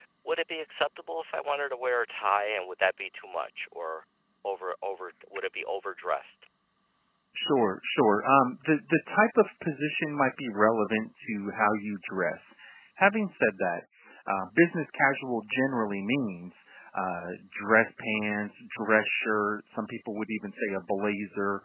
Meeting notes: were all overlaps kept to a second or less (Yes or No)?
Yes